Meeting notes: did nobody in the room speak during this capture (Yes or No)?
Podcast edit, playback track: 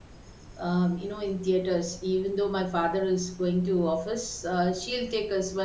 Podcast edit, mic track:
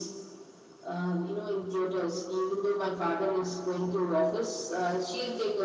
Yes